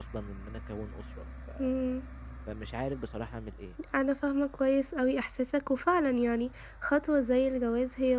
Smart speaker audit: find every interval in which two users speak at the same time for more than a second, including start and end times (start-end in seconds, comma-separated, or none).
none